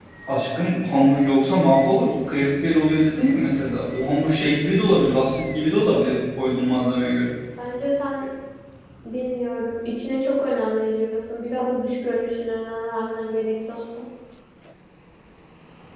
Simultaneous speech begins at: none

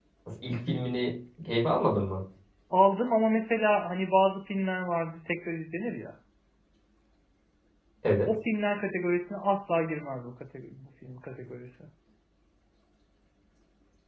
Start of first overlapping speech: none

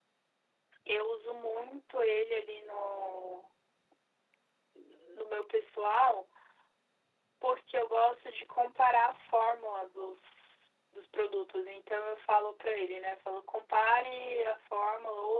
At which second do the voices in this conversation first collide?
none

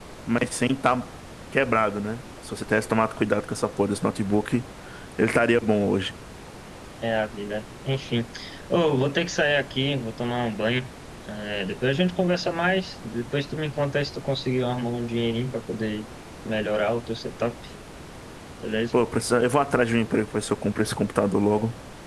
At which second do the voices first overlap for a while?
none

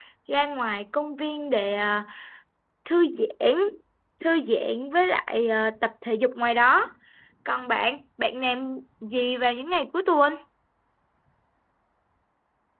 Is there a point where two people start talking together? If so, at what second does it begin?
none

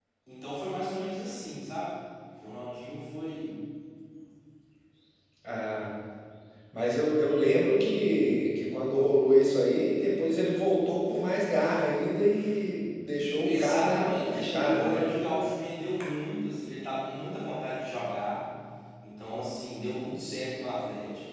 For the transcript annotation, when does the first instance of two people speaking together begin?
13 s

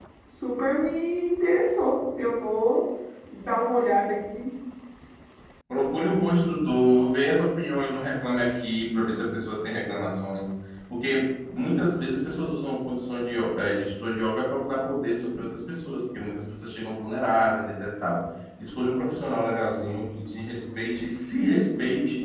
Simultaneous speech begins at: none

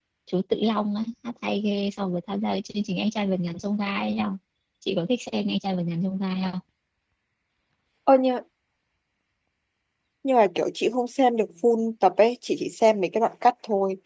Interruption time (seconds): none

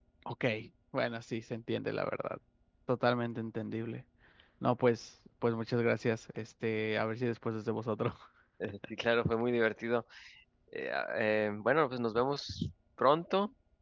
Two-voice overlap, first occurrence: none

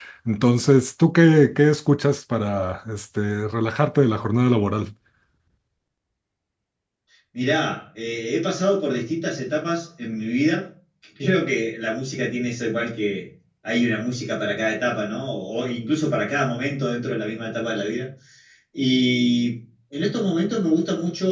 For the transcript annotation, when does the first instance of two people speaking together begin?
none

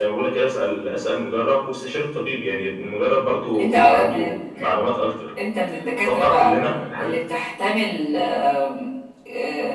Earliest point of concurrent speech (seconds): 3 s

